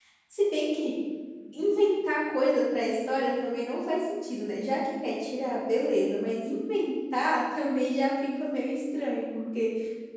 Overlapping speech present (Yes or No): No